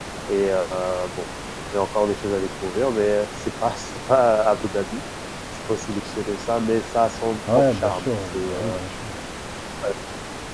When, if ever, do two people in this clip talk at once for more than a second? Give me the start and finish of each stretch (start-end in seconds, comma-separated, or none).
7.5-8.8